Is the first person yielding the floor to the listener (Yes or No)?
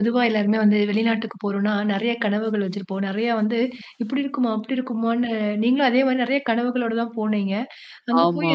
No